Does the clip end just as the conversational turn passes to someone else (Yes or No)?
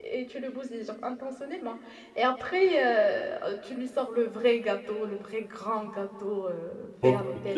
Yes